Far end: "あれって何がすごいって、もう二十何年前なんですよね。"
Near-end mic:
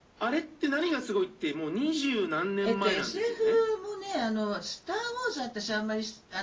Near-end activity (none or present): present